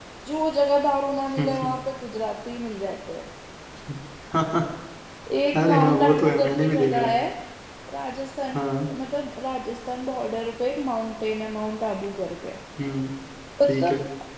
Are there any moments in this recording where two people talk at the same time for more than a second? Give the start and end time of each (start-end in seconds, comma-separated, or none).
5.6-7.2